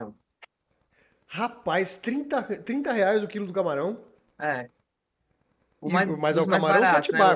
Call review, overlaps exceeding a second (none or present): present